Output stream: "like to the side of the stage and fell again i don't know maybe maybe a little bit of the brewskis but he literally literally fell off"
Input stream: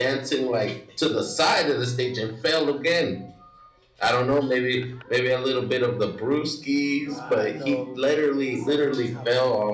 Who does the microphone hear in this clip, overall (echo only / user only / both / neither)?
both